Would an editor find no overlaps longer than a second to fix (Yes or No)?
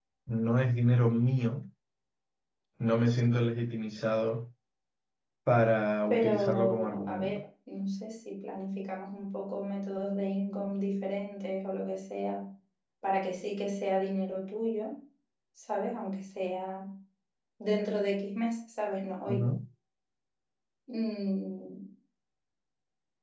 No